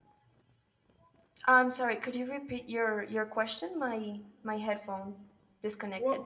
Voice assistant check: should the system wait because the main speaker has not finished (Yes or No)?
No